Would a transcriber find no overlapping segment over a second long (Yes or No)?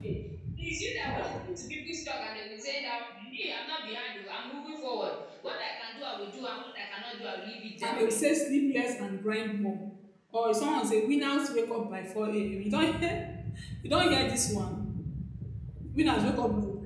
Yes